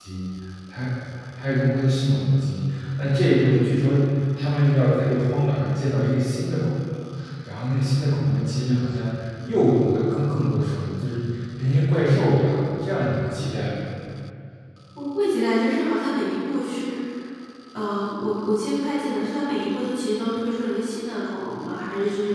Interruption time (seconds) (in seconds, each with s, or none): none